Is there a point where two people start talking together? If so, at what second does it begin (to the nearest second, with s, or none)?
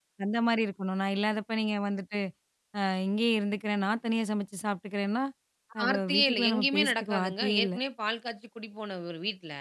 6 s